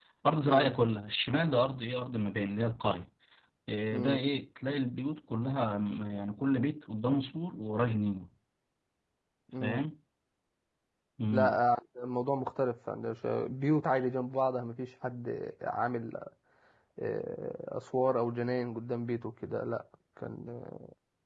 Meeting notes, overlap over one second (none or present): none